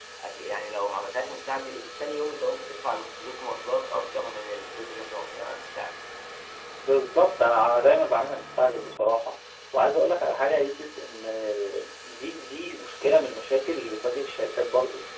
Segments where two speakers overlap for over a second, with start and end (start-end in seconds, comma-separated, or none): none